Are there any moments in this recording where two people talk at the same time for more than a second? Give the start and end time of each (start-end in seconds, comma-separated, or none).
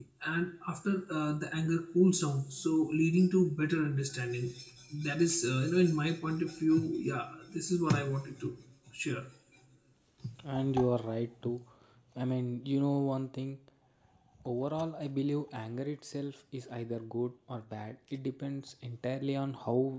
none